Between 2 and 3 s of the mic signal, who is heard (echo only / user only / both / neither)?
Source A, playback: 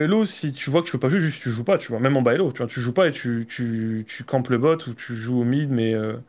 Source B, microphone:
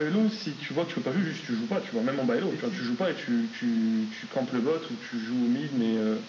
both